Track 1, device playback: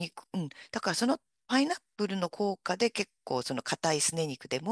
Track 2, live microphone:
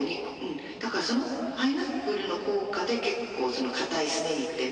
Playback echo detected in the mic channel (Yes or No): Yes